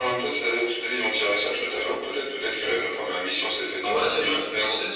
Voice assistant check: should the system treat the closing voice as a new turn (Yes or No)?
Yes